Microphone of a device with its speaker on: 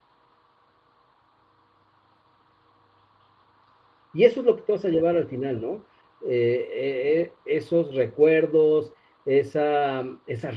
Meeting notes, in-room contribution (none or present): present